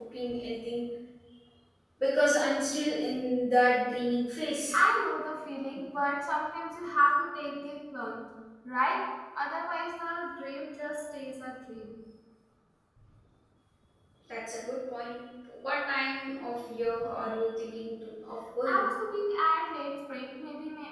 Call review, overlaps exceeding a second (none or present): none